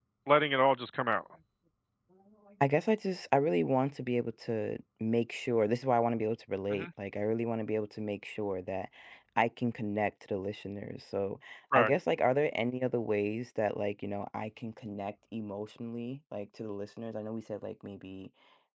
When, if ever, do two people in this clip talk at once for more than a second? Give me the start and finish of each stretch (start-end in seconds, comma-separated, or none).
none